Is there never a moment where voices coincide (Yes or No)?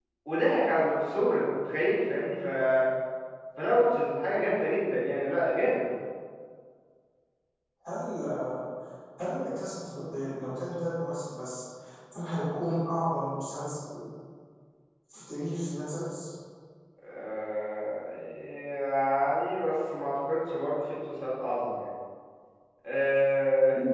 Yes